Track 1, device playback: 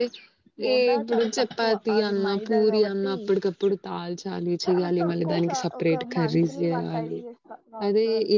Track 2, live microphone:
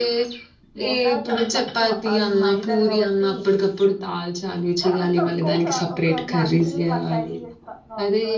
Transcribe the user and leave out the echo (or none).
none